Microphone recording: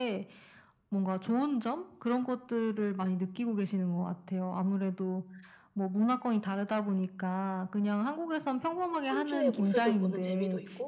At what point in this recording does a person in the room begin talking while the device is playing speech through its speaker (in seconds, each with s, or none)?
9.0 s